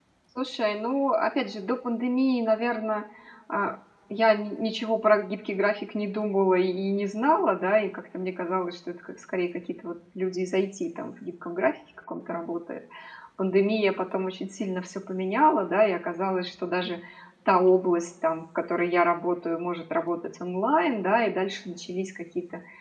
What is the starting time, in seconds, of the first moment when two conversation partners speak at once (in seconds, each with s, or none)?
none